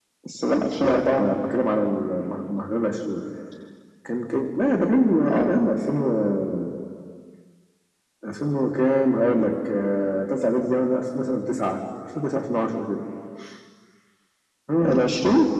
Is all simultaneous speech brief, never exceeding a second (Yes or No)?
Yes